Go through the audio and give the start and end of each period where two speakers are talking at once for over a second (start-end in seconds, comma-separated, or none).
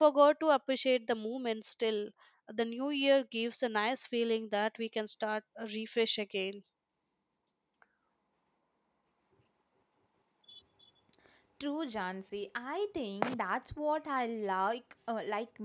none